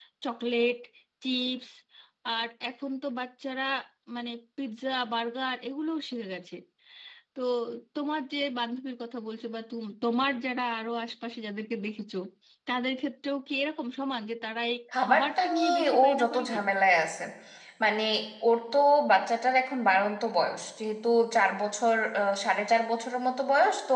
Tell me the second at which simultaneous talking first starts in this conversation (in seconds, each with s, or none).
14.9 s